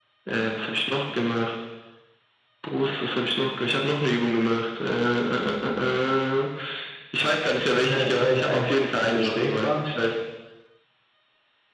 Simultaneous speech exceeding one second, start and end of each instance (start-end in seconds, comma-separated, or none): 7.8-9.9